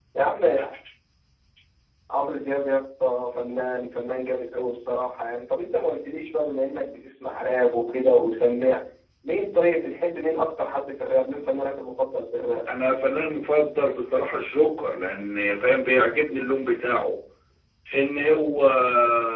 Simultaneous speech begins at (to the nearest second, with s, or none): none